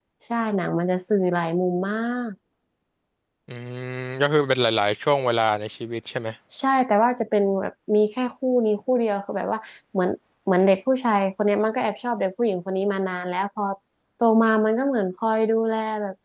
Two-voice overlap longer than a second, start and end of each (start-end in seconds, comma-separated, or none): none